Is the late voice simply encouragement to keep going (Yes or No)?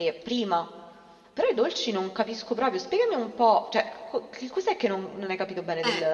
No